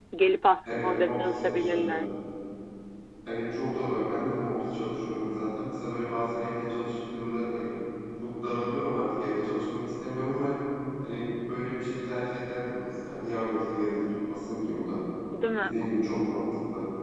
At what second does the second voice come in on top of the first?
0.7 s

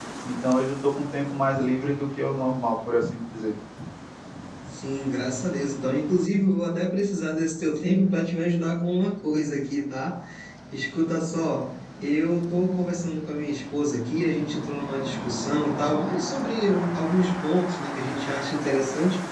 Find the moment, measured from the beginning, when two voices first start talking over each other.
none

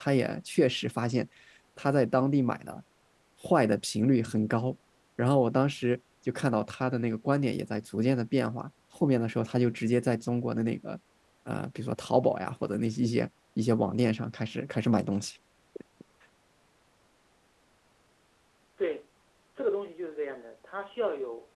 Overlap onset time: none

